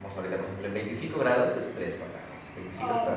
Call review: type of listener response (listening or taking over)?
taking over